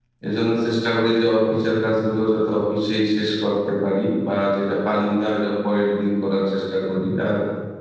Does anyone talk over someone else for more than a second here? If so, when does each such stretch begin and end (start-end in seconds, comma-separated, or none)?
none